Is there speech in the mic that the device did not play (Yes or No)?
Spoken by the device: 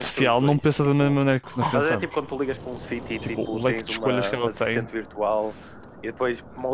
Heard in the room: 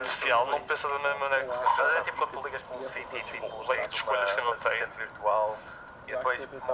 Yes